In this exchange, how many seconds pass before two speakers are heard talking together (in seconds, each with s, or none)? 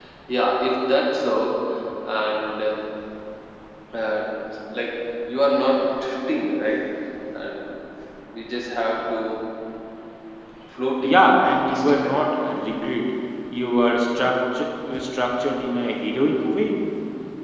11.0 s